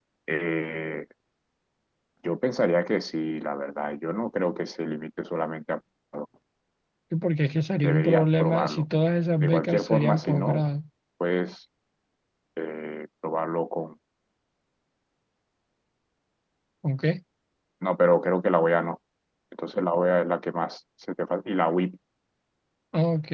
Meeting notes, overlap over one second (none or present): present